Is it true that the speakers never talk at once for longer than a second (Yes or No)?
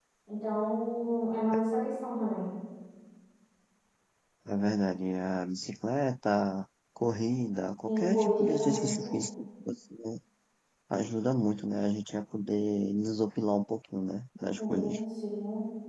No